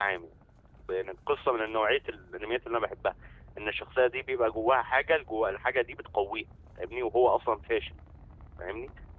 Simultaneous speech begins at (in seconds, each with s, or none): none